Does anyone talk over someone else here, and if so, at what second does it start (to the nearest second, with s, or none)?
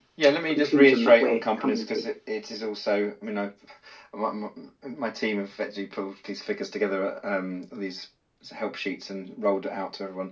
1 s